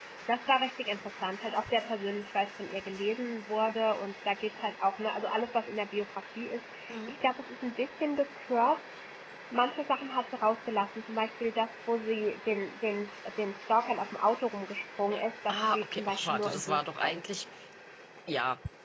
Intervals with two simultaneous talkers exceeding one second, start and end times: 15.5-17.2

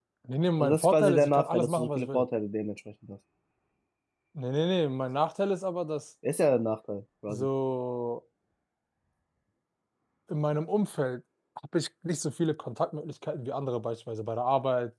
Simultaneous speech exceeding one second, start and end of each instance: 0.6-2.2

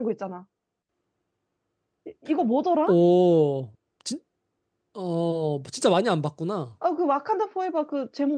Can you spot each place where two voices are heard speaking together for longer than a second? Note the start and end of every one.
none

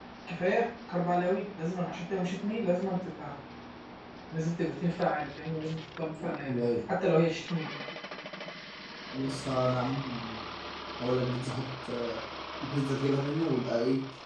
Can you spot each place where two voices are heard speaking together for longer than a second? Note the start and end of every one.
none

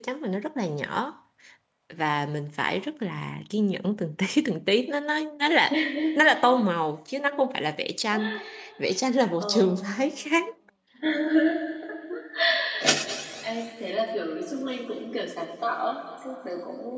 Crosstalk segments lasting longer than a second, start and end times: none

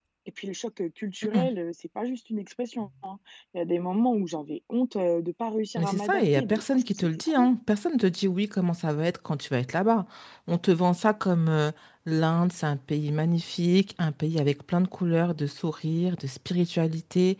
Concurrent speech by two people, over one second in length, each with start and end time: 5.8-7.5

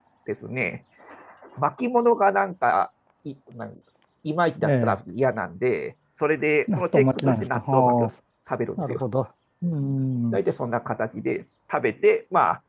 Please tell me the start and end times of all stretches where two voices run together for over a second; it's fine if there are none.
6.7-8.1

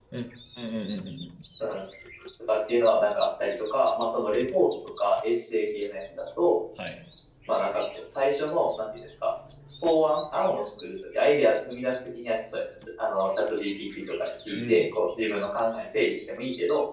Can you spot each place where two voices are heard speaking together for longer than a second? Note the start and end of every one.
none

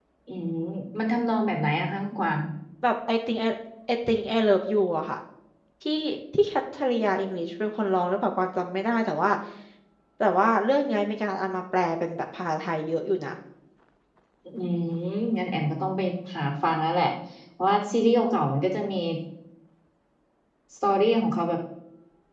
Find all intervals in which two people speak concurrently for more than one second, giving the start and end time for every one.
none

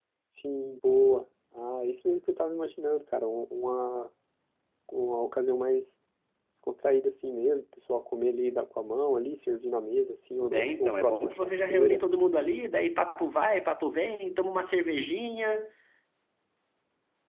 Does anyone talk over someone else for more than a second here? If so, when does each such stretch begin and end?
10.5-12.0

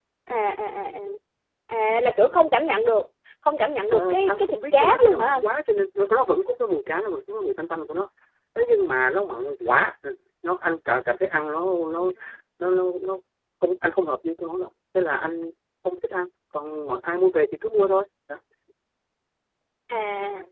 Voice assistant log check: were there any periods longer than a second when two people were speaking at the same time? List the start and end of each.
3.9-5.4

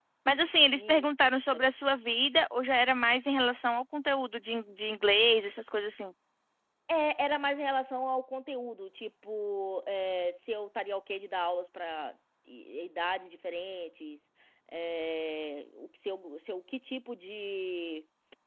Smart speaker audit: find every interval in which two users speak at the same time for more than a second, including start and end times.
none

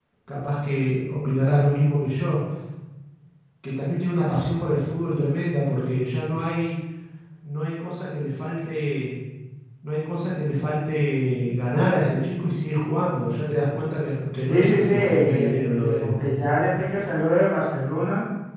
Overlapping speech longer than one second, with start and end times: 14.4-16.1

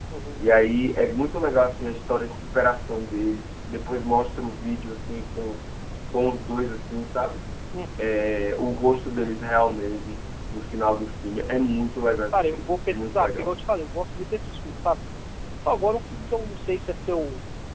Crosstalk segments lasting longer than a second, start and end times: 12.3-13.5

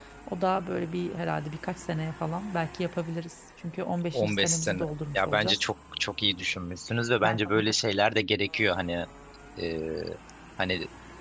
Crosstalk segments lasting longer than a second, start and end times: 4.1-5.6

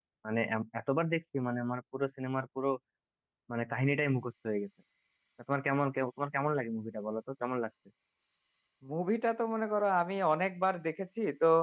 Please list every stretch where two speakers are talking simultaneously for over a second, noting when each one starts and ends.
none

